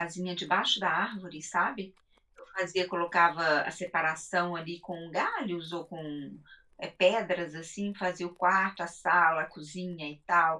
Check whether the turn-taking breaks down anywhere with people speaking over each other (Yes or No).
No